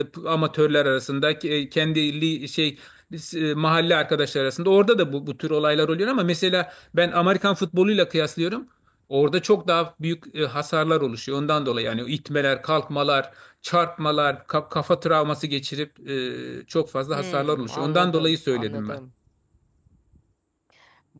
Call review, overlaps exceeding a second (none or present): present